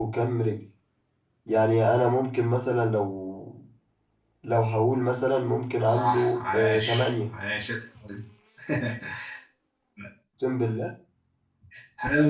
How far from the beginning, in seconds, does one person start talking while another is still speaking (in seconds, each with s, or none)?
5.9 s